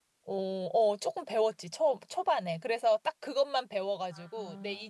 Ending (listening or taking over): listening